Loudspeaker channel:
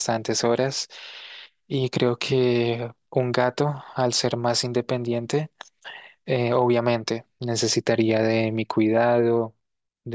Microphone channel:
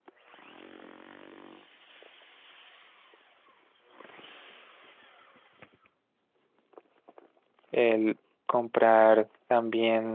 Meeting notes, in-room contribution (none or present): present